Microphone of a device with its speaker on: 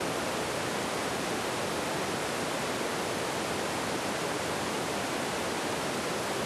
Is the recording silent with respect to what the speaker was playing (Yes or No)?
Yes